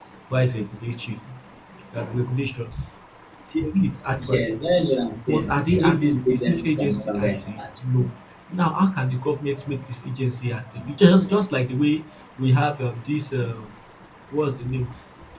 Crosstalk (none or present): present